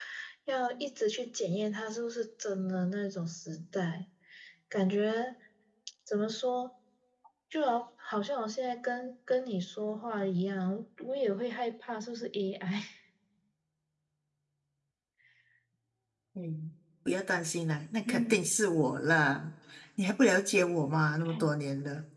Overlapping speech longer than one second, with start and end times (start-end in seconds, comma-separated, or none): none